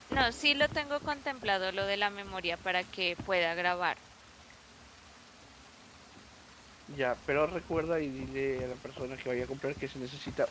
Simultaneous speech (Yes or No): No